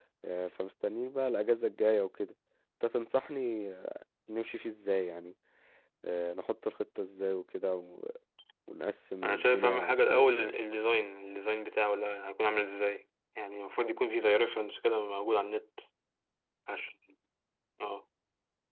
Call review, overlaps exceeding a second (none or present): present